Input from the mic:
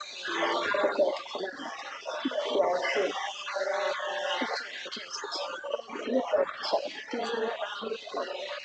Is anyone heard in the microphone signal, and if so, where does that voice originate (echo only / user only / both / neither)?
echo only